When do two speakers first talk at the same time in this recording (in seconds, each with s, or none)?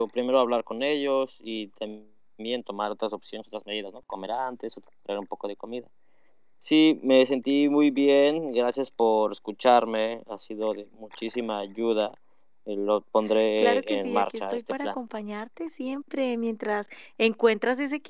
13.6 s